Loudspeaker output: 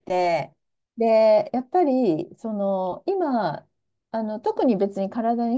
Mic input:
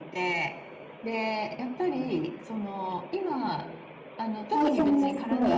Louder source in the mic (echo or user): user